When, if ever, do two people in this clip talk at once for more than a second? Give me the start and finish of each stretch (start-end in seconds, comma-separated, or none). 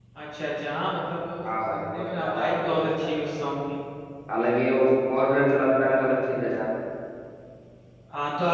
1.4-3.1